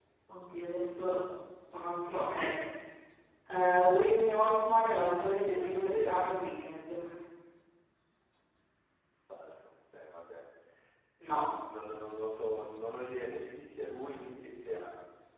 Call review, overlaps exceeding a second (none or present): present